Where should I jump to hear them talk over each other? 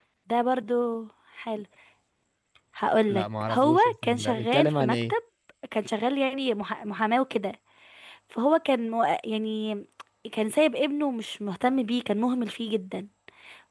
3 s

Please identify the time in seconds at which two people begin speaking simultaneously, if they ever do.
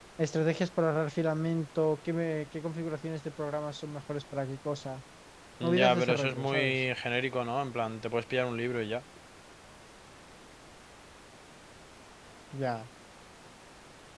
6 s

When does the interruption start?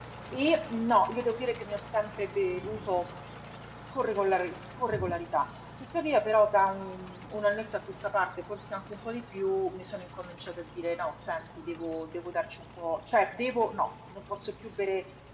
none

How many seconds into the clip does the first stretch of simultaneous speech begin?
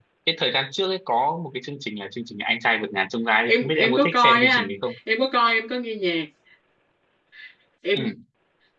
3 s

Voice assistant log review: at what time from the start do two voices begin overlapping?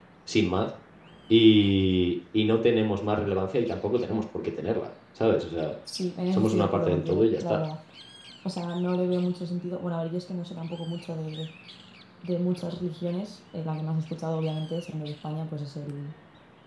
6 s

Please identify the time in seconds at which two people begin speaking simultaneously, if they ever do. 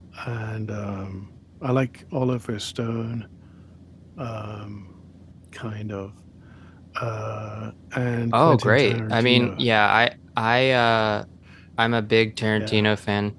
8 s

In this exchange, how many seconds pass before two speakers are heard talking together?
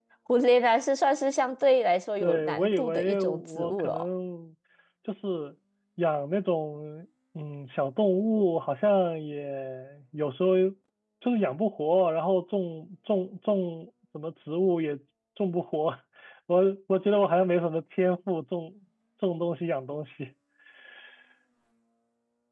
2 s

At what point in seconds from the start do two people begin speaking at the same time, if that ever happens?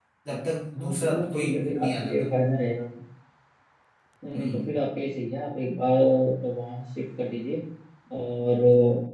1 s

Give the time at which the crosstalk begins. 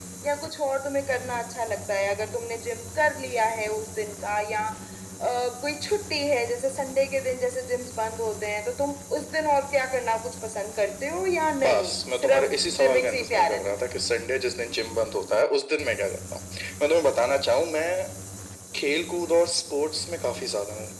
12 s

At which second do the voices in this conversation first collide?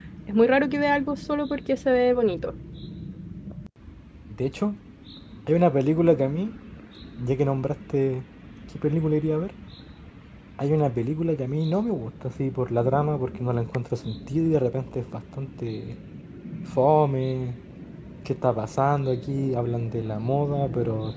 none

